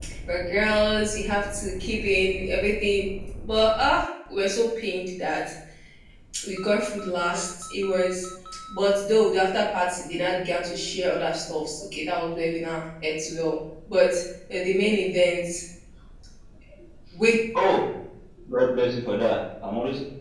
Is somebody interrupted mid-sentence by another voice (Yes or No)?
No